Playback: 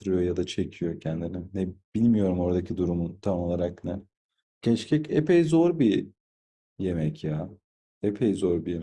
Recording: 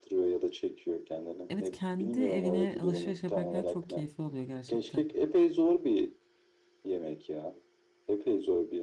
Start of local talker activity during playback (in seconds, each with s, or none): 1.5 s